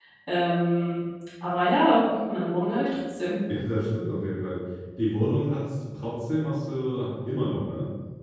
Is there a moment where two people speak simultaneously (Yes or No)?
No